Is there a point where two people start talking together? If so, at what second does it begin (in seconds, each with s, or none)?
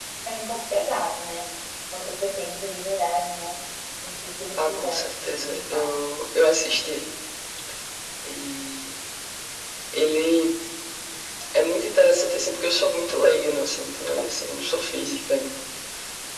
4.6 s